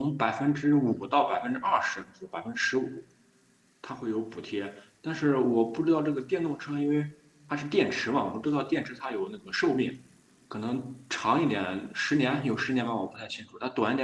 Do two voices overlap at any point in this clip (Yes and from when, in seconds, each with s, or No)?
No